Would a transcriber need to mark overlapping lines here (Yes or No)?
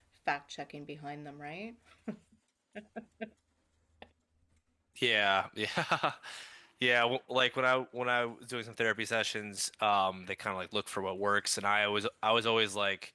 No